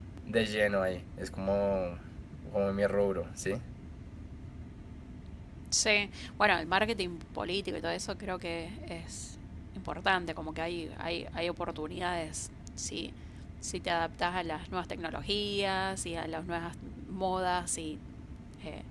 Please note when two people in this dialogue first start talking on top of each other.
none

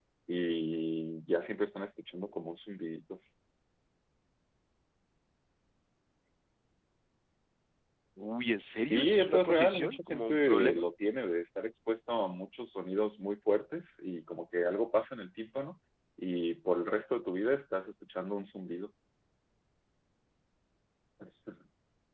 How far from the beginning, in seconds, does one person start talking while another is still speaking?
8.9 s

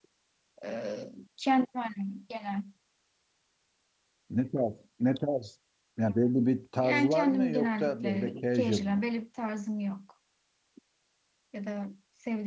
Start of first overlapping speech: 6.8 s

